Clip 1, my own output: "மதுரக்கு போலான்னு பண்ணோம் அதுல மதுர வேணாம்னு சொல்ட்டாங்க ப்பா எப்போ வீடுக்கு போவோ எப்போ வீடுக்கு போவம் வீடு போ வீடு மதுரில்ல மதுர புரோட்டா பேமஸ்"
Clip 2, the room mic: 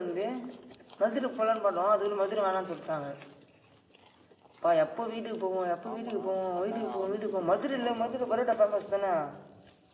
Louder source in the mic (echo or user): echo